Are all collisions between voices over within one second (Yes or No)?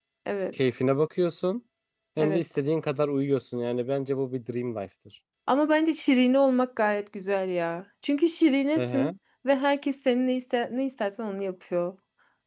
Yes